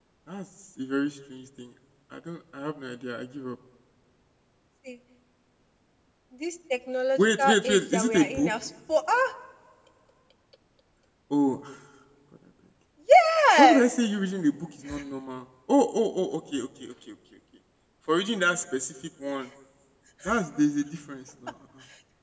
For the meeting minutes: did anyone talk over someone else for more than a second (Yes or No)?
Yes